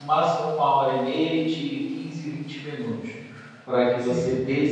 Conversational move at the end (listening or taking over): listening